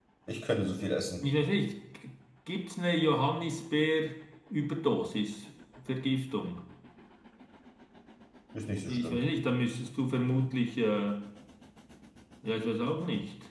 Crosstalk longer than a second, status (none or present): none